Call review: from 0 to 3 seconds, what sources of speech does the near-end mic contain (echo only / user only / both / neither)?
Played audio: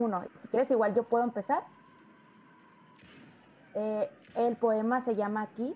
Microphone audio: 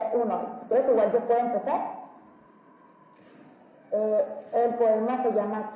echo only